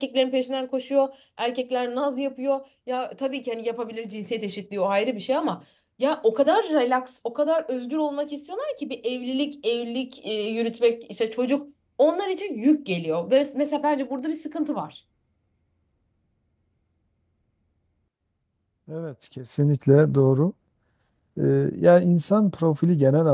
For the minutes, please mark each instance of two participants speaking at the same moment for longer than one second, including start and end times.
none

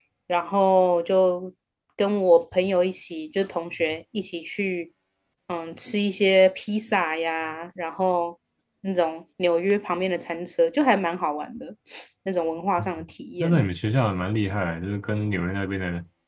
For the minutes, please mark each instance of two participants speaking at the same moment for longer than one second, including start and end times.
none

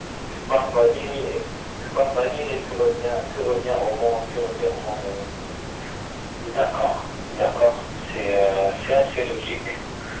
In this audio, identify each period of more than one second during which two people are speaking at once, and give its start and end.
none

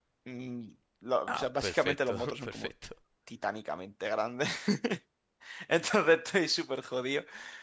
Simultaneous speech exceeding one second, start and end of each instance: 1.3-2.7

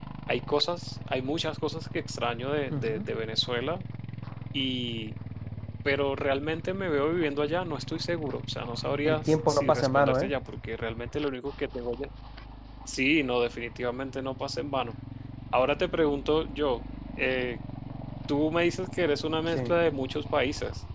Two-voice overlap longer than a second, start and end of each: 9.0-10.3

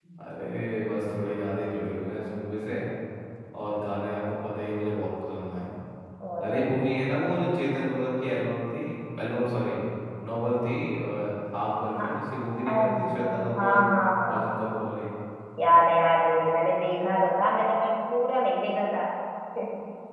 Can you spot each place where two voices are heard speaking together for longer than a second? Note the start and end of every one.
none

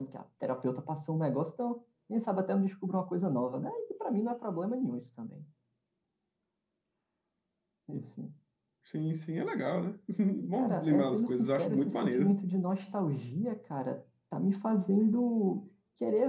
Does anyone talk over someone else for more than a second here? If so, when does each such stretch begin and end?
10.6-12.3

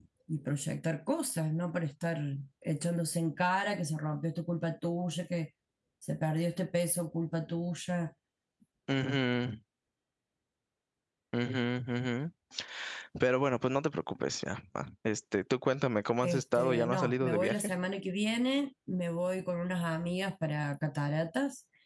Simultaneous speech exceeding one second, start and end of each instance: 16.2-17.6

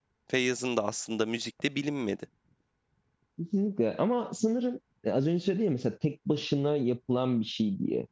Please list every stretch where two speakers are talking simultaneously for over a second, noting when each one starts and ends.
none

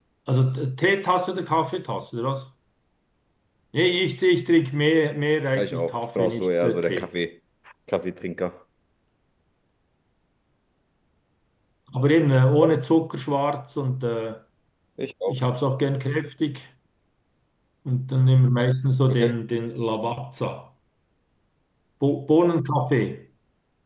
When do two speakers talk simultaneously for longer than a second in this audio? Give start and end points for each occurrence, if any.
5.5-7.1

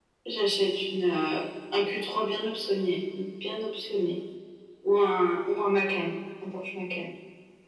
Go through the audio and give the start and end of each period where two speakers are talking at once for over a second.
none

